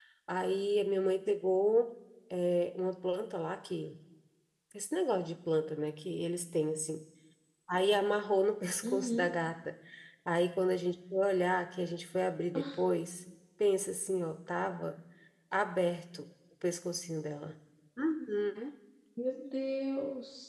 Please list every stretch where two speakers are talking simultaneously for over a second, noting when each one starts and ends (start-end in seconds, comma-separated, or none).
none